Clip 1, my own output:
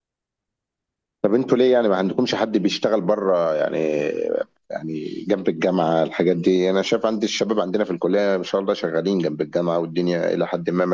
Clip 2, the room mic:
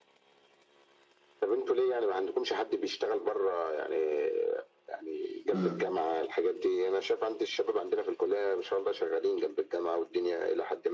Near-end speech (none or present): present